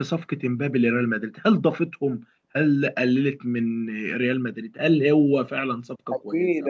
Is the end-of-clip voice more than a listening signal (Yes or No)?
Yes